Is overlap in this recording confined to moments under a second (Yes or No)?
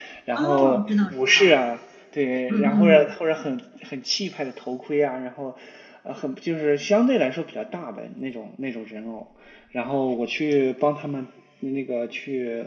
No